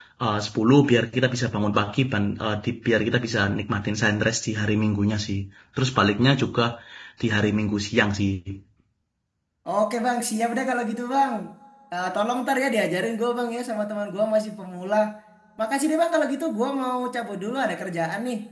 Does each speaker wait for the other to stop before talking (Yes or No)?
Yes